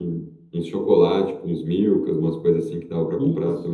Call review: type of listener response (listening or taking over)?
taking over